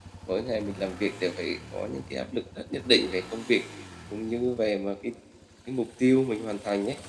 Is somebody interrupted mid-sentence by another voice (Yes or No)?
No